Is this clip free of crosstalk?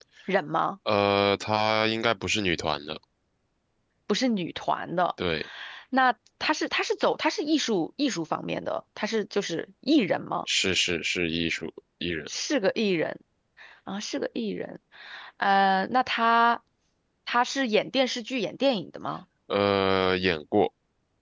Yes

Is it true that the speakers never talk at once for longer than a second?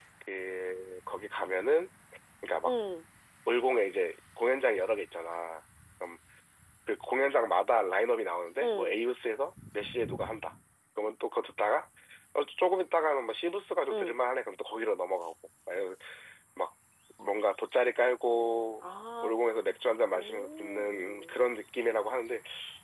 No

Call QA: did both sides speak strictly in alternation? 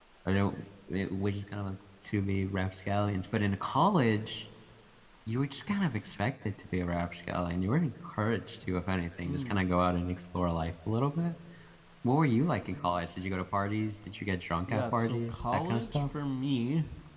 No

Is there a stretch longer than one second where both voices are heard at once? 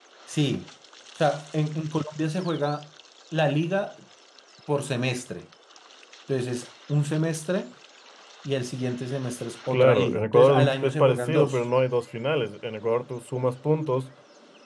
Yes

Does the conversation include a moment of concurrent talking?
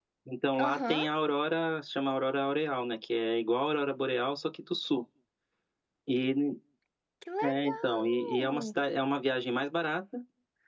Yes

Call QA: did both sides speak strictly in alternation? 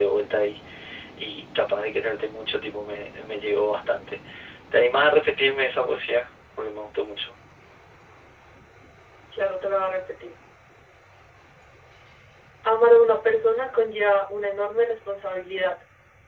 Yes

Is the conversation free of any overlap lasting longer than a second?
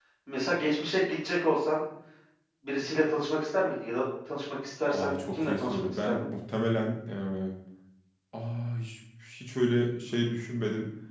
No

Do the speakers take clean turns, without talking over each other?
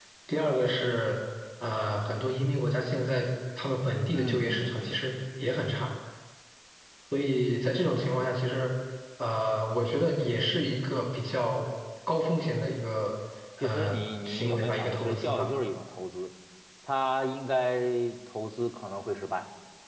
No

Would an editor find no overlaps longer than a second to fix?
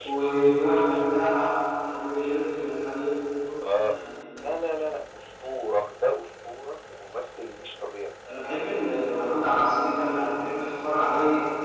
Yes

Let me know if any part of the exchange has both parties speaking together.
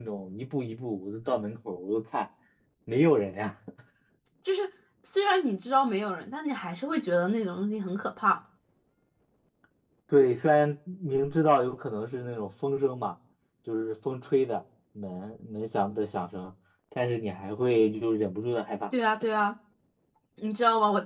No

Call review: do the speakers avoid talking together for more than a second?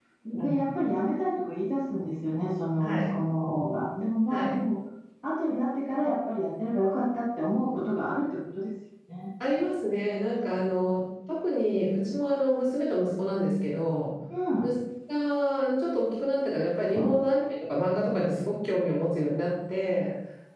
Yes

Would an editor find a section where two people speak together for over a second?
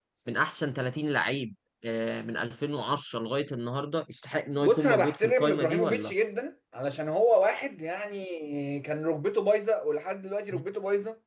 Yes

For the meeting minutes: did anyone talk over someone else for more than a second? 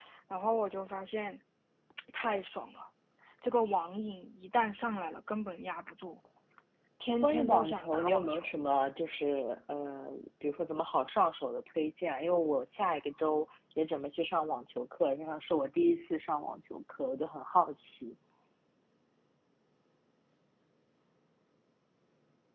Yes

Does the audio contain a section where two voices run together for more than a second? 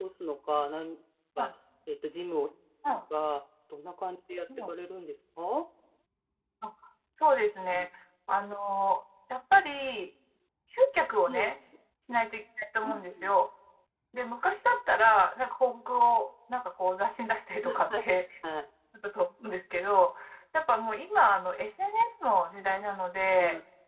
No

